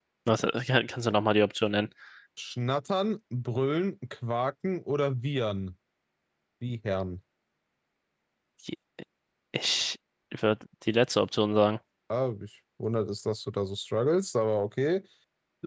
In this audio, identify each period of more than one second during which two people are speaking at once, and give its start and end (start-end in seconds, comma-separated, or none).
none